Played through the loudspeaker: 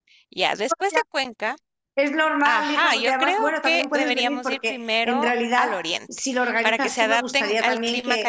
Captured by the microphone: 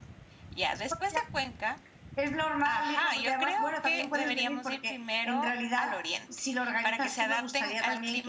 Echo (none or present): present